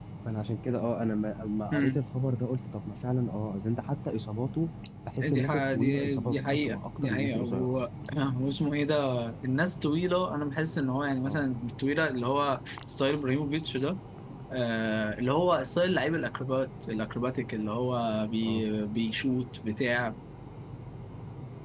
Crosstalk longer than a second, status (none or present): present